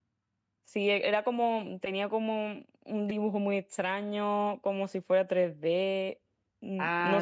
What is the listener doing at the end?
taking over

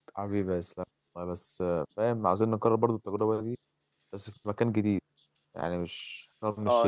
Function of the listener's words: taking over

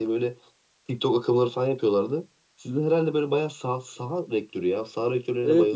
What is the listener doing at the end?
taking over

